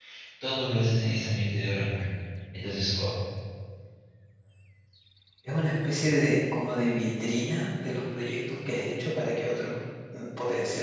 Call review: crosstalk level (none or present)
none